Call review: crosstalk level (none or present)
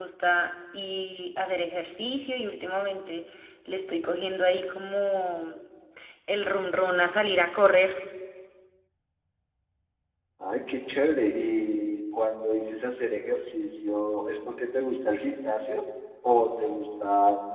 none